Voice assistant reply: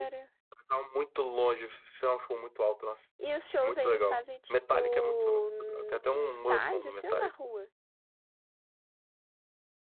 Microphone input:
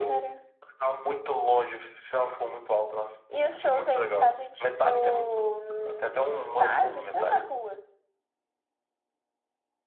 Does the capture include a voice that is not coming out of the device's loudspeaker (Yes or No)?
No